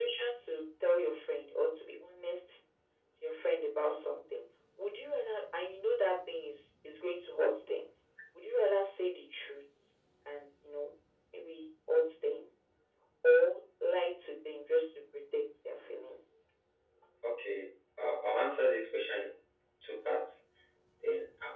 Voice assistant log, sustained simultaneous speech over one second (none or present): none